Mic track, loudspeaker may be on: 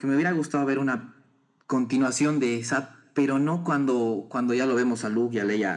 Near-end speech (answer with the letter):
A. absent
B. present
A